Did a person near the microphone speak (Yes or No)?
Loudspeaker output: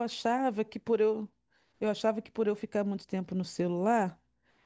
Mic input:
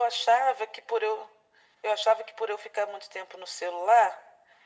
No